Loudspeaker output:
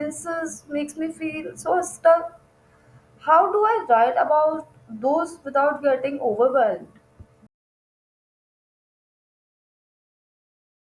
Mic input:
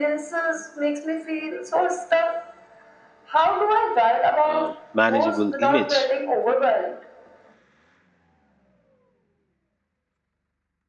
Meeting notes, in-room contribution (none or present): present